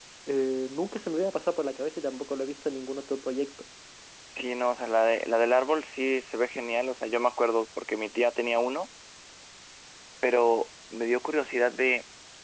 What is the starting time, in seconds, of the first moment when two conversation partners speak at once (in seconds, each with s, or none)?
none